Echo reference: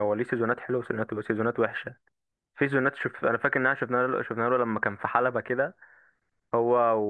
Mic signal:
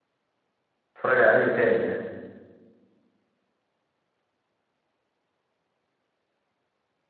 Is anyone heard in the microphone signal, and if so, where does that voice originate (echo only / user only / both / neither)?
user only